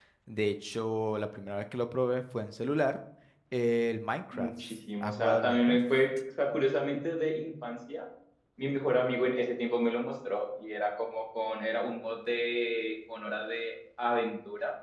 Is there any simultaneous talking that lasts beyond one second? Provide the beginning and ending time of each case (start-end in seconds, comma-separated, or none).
4.3-5.8